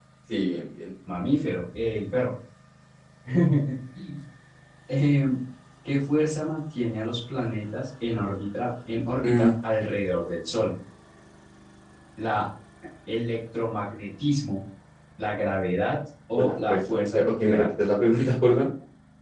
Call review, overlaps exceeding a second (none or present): present